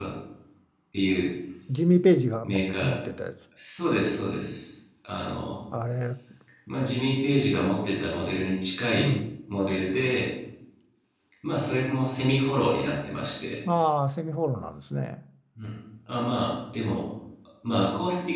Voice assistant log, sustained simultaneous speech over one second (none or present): none